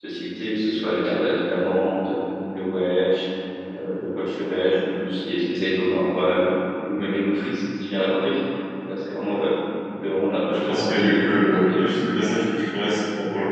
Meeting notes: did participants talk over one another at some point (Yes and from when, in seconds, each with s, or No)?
Yes, from 10.5 s